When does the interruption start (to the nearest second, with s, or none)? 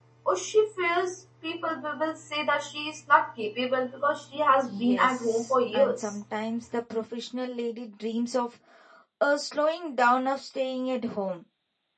5 s